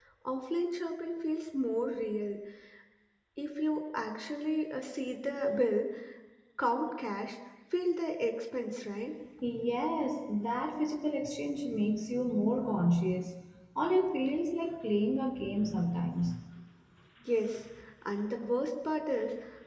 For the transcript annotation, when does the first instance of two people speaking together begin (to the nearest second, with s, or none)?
none